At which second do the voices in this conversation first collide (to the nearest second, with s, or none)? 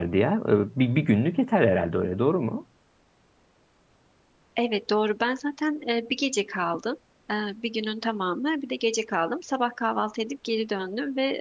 none